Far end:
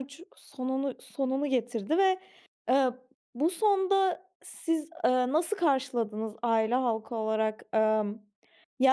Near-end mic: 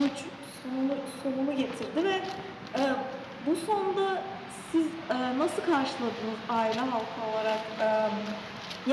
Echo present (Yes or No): Yes